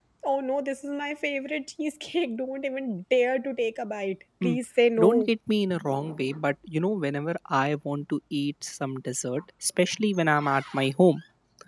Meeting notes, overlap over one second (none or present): none